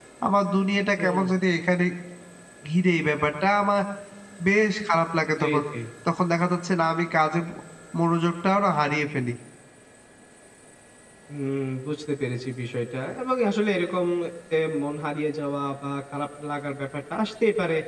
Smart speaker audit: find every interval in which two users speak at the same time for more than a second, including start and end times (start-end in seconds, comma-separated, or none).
none